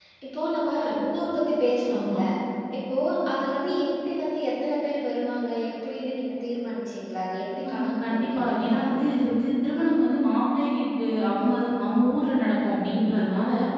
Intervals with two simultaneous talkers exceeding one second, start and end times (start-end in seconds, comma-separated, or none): 7.7-8.9